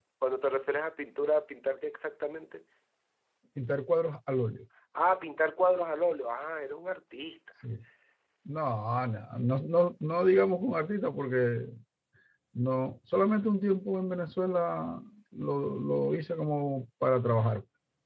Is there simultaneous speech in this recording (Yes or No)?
No